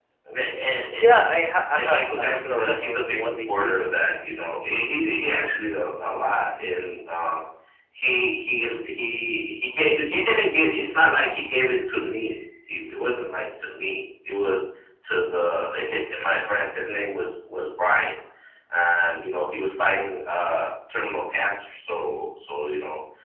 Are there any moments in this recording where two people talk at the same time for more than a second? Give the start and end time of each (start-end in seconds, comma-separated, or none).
1.8-3.7